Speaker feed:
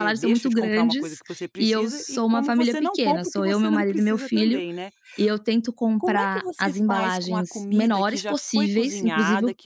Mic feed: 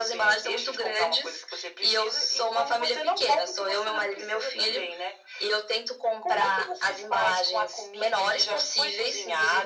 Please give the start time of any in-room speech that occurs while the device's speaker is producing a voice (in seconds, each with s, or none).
none